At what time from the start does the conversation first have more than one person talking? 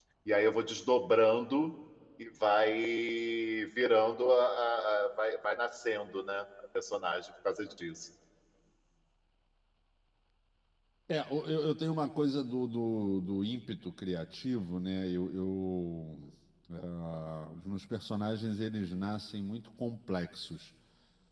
none

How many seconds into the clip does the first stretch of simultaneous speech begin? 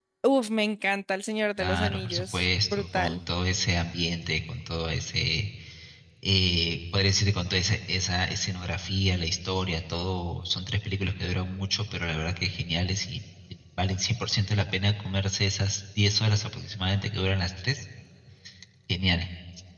2 s

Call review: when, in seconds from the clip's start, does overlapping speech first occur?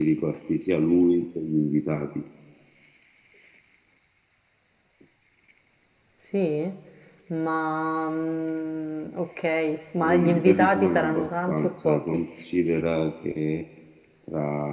10 s

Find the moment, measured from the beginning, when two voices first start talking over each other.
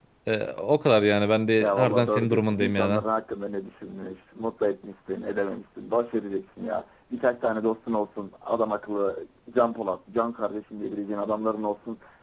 2 s

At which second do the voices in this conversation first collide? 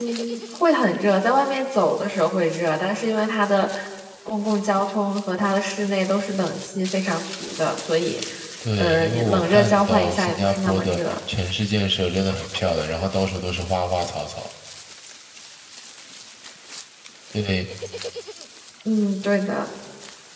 9 s

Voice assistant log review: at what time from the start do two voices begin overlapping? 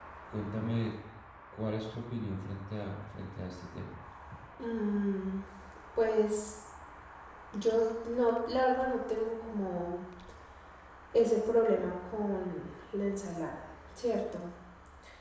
none

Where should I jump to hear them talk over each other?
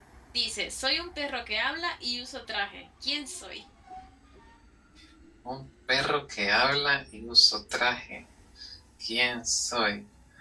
none

